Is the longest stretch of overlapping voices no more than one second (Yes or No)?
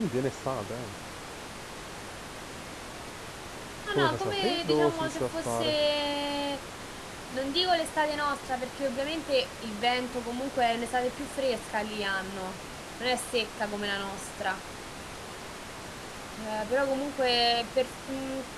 No